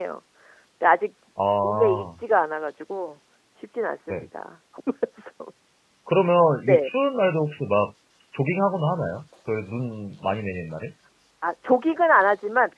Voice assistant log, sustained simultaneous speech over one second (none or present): none